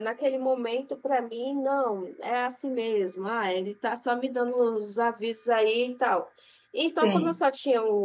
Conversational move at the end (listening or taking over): listening